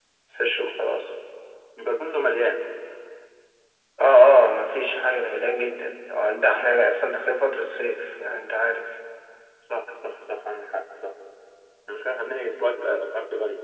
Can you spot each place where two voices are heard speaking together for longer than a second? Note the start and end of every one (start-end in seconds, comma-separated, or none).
none